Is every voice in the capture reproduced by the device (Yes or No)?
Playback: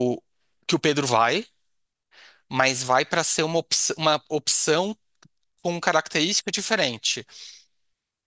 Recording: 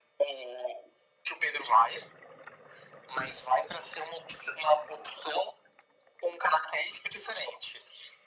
Yes